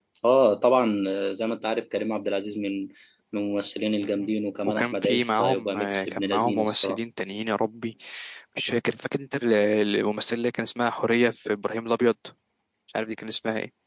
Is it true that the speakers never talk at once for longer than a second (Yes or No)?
No